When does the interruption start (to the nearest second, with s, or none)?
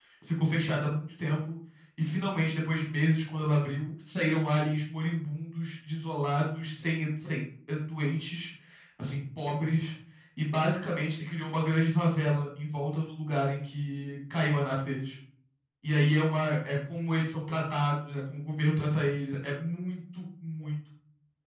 none